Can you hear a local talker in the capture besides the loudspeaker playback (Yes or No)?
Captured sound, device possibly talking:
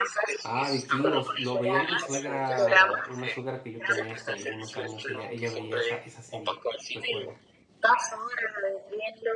Yes